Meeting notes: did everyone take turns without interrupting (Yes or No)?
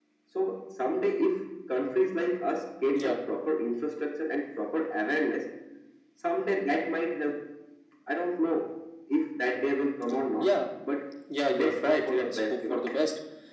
No